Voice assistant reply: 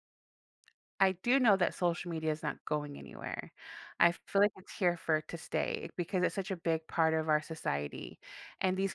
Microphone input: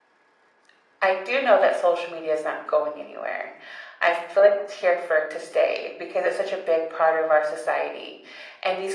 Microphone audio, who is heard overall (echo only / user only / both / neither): echo only